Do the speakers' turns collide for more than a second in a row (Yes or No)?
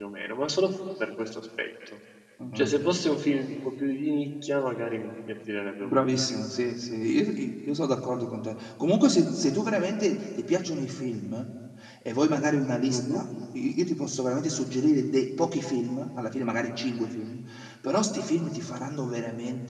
No